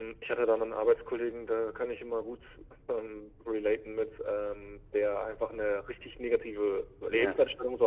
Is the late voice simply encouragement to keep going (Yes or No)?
Yes